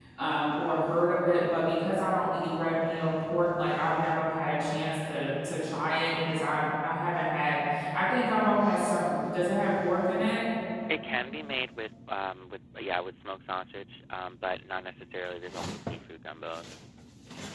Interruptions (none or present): none